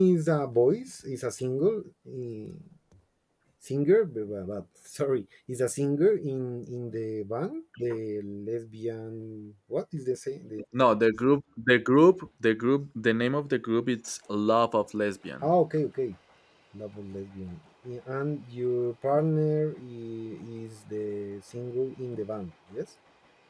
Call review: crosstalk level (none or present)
none